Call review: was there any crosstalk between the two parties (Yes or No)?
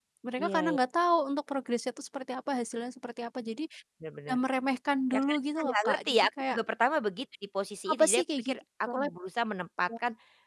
Yes